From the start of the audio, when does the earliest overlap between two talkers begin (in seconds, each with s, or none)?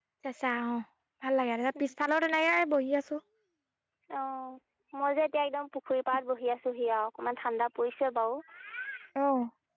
none